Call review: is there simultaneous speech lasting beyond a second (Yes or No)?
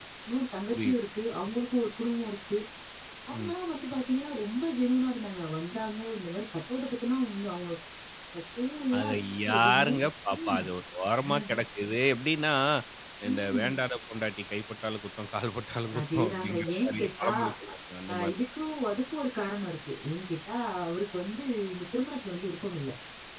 Yes